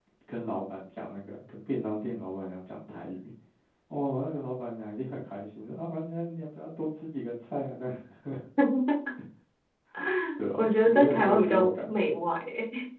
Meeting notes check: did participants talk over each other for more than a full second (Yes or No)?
Yes